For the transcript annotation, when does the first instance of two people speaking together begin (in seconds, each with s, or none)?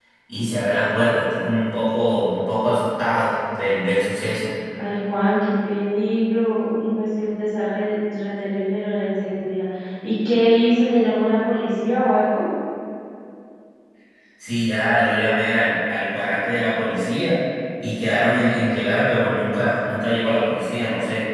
none